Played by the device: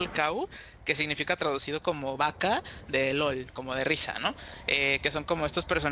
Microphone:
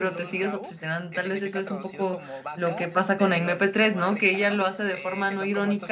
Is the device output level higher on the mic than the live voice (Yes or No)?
No